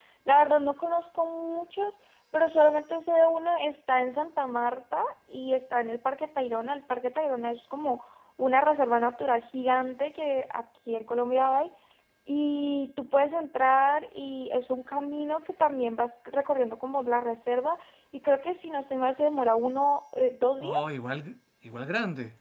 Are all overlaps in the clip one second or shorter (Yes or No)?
Yes